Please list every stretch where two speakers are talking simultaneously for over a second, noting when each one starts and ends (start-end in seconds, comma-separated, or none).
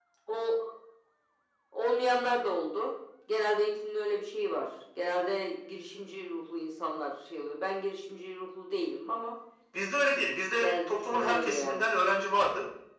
10.6-11.9